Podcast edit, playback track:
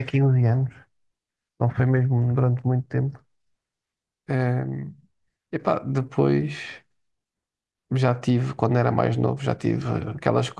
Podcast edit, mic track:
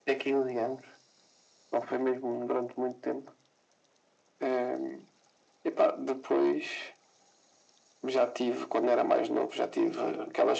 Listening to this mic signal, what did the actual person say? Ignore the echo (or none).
none